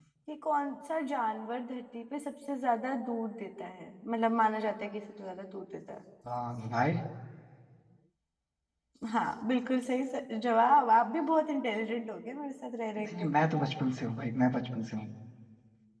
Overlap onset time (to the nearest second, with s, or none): none